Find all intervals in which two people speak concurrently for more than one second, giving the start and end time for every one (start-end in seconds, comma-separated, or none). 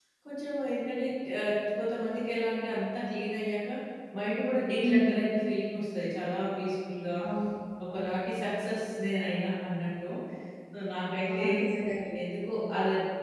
none